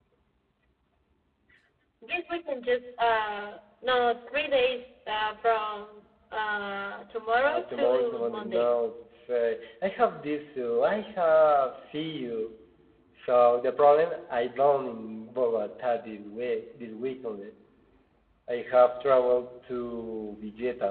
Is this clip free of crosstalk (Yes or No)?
No